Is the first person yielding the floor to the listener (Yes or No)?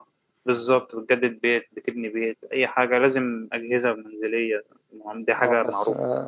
Yes